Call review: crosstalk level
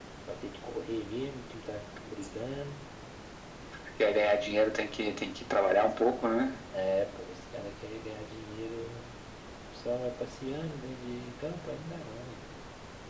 none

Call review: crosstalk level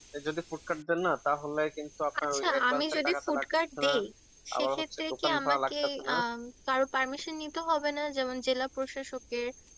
present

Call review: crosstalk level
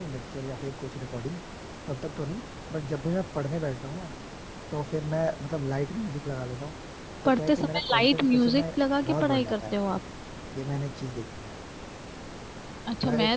present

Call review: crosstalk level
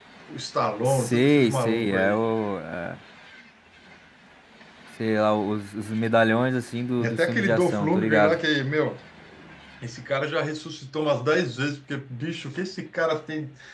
present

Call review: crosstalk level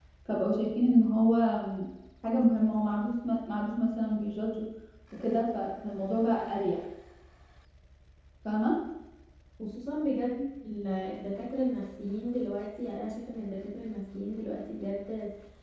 none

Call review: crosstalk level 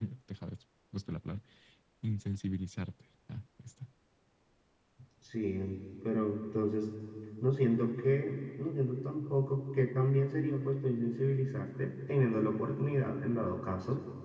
none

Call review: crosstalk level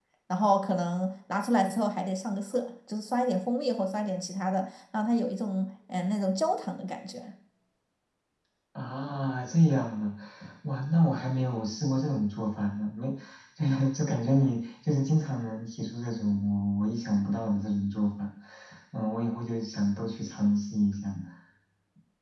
none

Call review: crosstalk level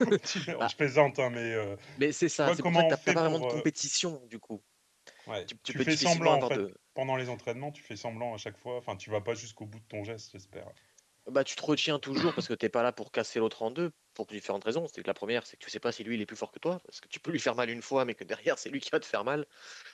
present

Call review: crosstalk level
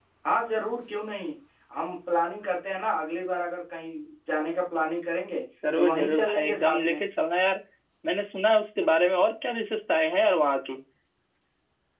present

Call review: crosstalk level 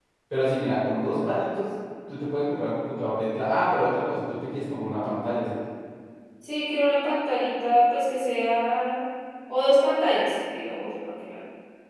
none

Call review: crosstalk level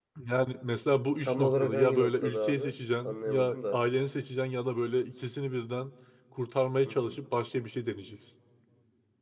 present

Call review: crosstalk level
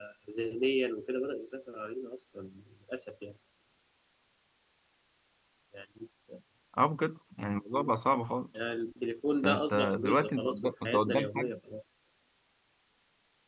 present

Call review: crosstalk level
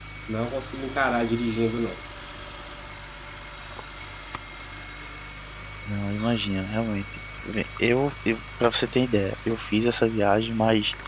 none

